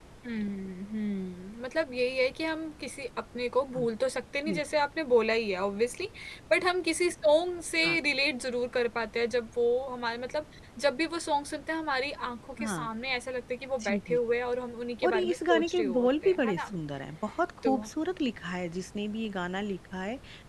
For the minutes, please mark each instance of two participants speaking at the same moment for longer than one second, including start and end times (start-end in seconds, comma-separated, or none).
15.1-16.7